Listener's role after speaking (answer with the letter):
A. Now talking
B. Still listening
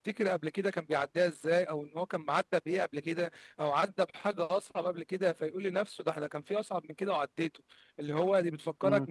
B